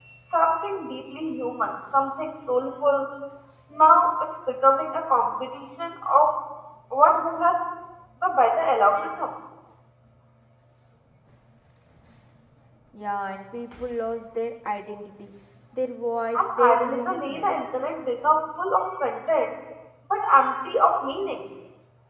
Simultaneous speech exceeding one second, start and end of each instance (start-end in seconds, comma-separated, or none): 16.4-17.6